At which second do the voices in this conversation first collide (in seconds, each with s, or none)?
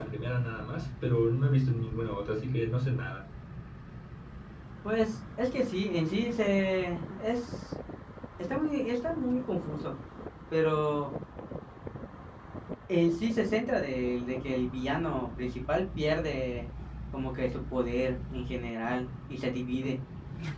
none